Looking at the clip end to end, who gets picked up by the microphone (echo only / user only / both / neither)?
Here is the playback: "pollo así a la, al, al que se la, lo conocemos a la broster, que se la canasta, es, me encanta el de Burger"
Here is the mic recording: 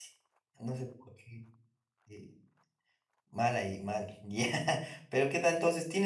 user only